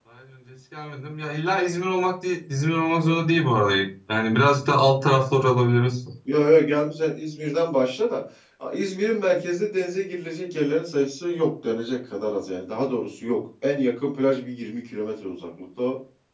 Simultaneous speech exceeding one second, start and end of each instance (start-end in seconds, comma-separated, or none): none